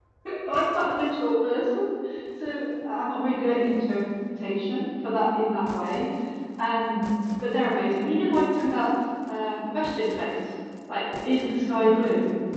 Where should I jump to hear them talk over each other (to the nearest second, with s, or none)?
none